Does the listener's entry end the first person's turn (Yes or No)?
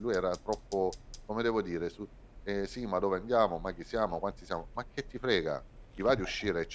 No